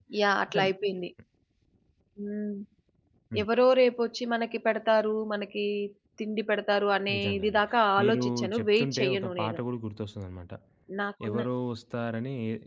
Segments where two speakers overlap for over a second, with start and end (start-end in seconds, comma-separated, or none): 8.0-9.6